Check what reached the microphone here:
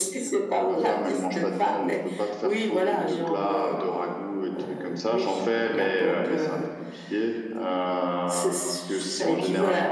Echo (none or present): present